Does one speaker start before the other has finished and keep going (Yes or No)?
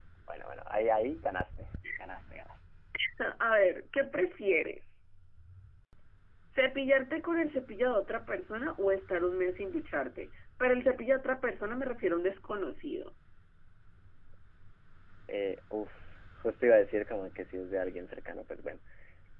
No